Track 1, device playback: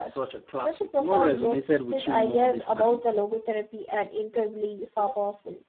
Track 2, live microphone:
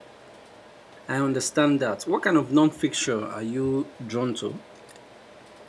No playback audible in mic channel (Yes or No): Yes